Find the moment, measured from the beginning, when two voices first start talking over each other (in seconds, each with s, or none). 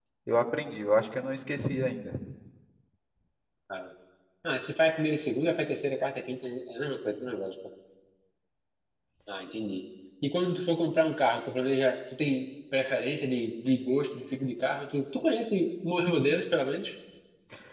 none